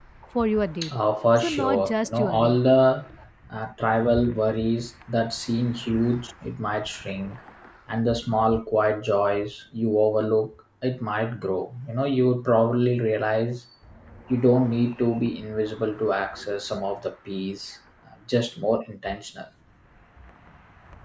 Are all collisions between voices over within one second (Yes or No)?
No